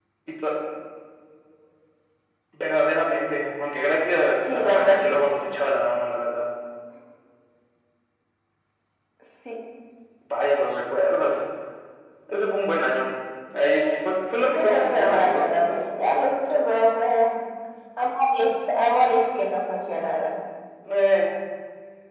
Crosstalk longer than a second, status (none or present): present